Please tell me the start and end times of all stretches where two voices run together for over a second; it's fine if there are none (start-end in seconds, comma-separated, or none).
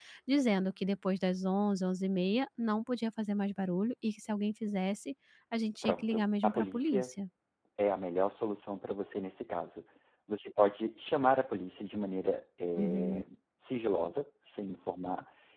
5.8-7.1